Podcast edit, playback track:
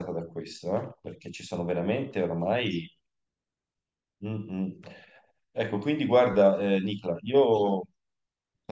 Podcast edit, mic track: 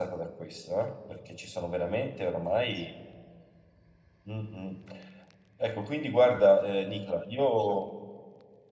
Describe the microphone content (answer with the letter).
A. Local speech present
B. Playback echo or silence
B